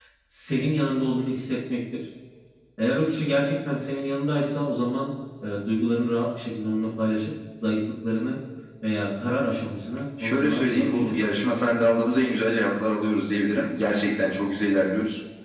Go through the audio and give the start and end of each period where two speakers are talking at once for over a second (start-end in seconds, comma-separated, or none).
10.2-11.6